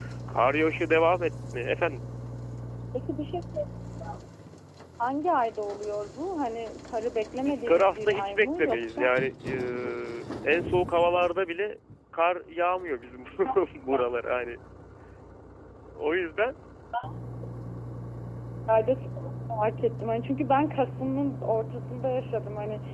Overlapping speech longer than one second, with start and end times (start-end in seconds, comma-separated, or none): 7.3-9.1